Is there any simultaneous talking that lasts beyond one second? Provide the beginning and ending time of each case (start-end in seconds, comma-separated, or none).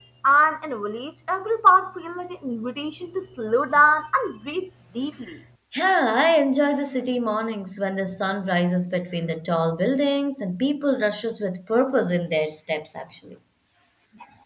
none